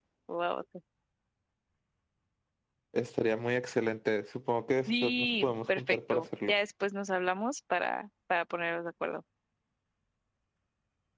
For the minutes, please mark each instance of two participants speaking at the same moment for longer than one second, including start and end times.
4.9-6.6

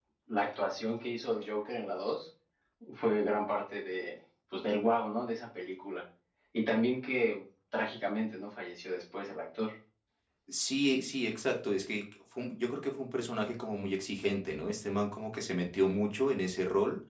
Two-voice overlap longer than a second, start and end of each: none

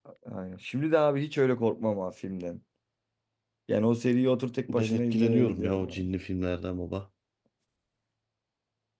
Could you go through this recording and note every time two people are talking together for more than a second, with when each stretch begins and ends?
4.7-6.0

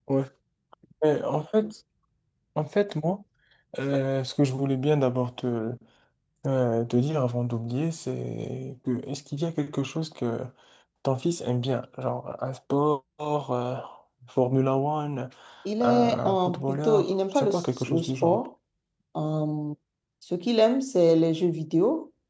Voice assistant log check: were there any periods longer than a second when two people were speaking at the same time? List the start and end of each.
15.8-18.4

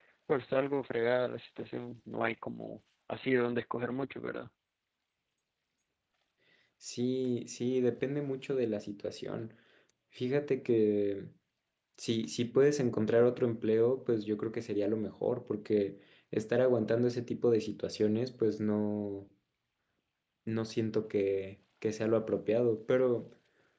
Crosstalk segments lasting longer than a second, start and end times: none

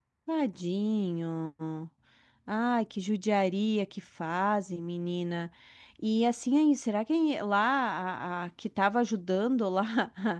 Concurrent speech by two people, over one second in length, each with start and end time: none

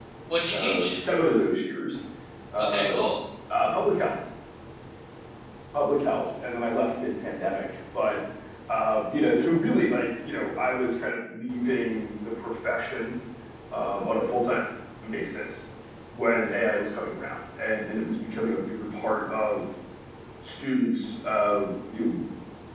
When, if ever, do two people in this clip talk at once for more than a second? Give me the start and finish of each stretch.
none

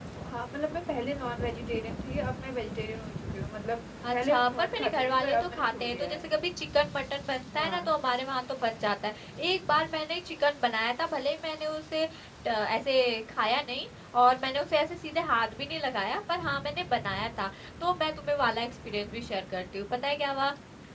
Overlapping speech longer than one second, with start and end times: 4.1-6.3

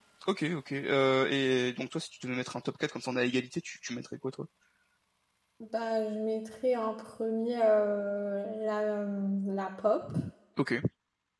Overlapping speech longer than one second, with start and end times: none

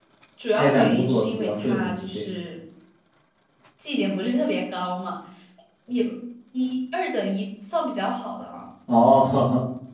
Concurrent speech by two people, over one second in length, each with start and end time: 0.5-2.2

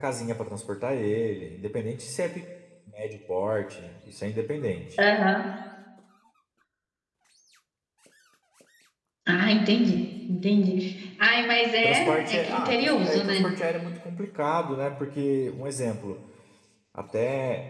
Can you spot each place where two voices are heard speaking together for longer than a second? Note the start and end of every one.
11.8-13.5

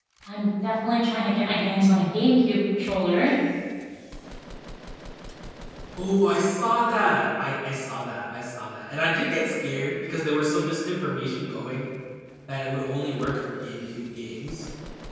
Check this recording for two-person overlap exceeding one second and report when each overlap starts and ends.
none

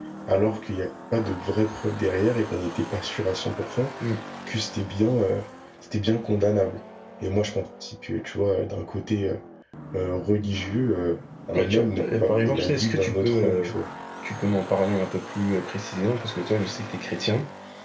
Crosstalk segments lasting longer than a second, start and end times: 11.5-13.7

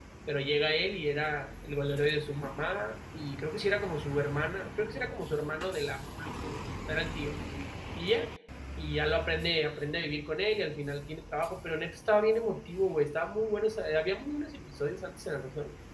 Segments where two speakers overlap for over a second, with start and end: none

